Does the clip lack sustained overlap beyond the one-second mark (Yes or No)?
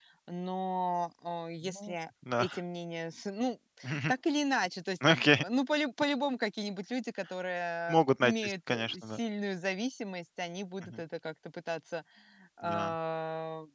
No